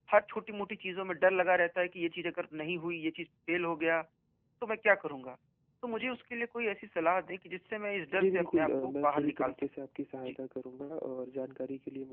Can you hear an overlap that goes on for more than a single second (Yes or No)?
Yes